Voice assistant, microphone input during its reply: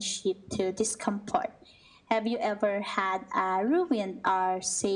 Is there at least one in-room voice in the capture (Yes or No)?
No